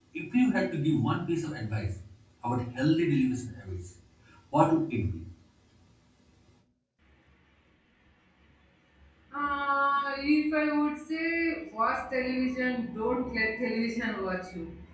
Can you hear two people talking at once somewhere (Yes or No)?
No